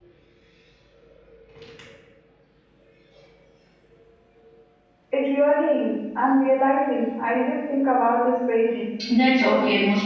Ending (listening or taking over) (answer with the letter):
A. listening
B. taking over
B